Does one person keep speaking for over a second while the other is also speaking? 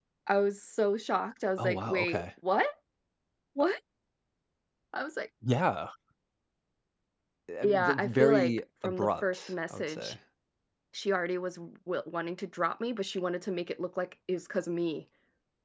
Yes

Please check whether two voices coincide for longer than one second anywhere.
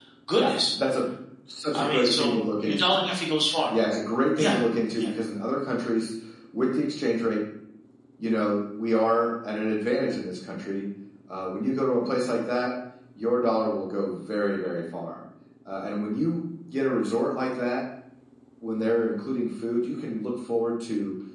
Yes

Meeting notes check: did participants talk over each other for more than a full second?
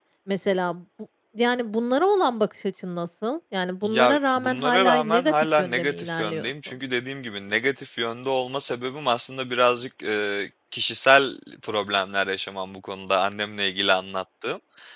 Yes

